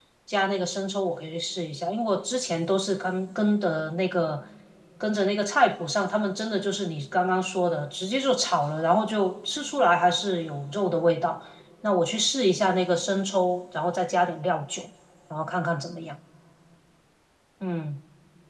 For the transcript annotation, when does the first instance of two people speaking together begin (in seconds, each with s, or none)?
none